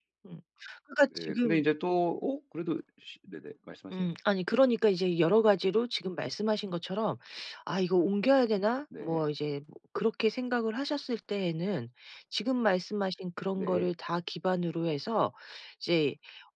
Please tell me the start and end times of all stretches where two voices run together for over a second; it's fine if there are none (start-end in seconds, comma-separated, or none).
none